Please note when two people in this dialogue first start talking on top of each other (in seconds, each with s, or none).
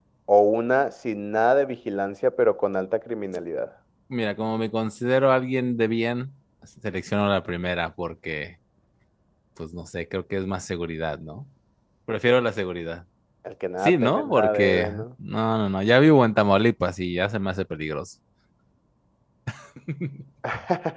13.8 s